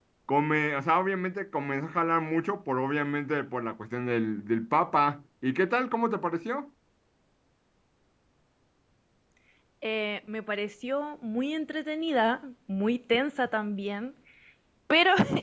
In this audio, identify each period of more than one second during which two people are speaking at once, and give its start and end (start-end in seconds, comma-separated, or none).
none